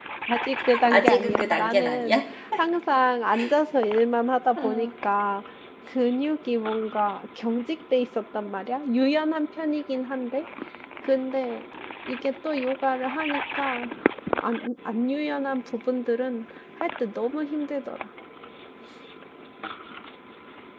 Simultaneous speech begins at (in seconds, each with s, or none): 0.9 s